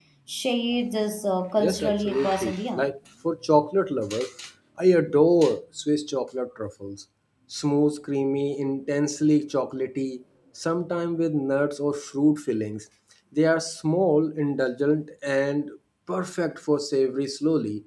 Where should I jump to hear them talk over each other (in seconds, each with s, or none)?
1.6 s